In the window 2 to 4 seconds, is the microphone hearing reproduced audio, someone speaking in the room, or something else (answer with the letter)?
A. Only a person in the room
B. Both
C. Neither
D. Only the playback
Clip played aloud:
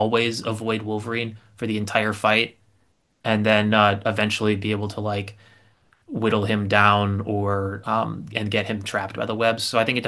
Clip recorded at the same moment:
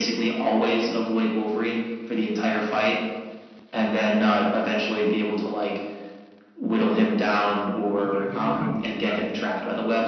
D